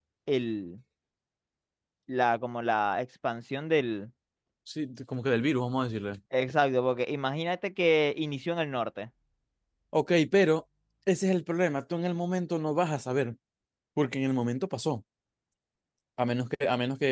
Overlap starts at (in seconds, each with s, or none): none